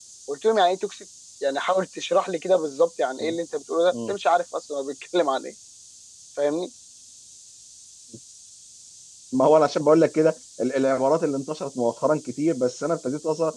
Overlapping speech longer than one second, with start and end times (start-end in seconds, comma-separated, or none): none